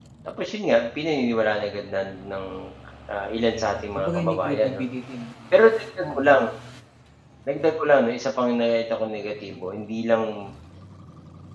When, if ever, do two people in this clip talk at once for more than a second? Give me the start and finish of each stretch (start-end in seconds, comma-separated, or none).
3.5-4.8